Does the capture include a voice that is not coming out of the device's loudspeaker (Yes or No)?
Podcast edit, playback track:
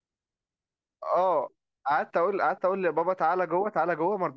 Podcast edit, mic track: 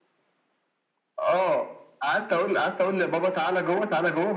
No